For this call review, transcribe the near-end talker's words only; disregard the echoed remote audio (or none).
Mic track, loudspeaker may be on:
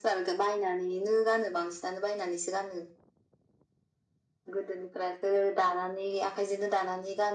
none